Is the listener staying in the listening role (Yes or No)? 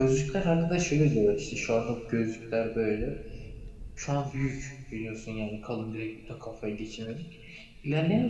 Yes